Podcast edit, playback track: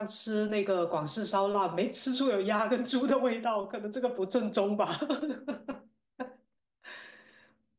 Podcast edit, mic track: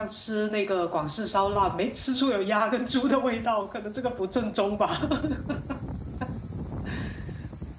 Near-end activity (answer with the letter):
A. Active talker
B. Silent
B